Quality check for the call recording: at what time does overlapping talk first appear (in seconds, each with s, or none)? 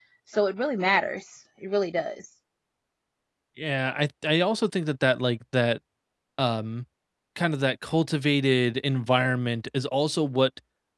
none